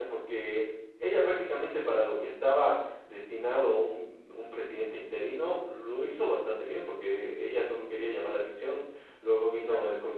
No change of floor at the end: Yes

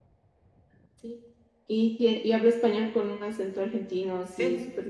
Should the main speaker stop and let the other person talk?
Yes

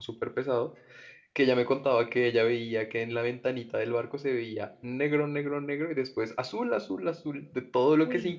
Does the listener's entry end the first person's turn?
No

